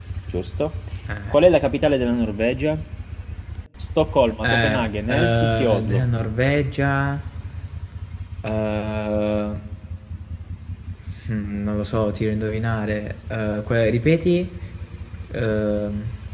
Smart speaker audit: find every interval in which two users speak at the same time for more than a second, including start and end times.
4.4-6.0

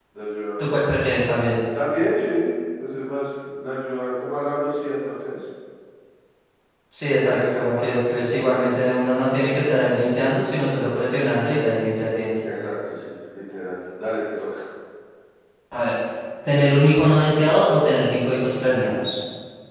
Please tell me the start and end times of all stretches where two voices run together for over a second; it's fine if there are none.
7.2-8.7

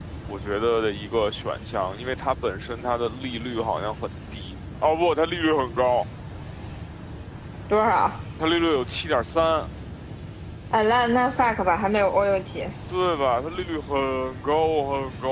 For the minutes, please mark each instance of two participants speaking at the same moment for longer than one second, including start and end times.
none

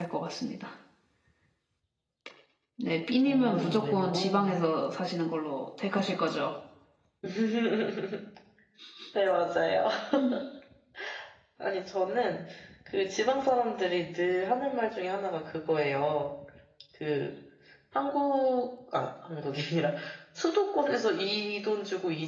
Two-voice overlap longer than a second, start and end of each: 3.2-4.5

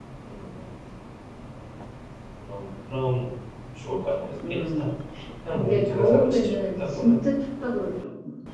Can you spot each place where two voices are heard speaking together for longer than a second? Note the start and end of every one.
5.5-7.2

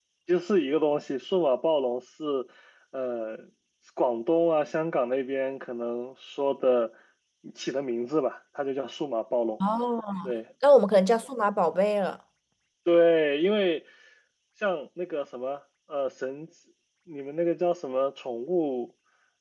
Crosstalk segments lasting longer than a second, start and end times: none

